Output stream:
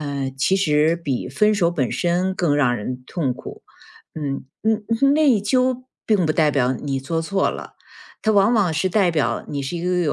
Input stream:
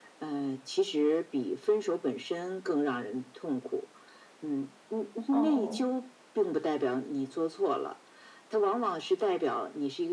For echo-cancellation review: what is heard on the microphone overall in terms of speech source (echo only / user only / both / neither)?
both